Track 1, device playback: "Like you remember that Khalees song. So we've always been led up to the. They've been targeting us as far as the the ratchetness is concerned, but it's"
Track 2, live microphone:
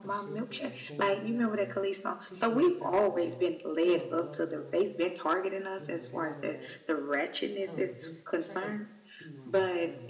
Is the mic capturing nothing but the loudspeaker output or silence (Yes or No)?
No